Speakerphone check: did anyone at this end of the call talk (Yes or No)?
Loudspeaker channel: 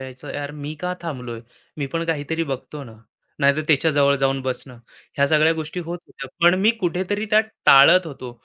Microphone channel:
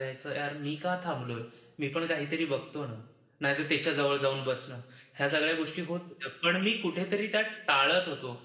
No